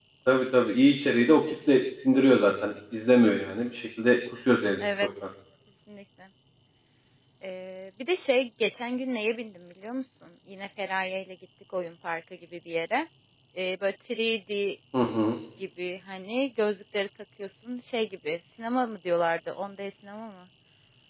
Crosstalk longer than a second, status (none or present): none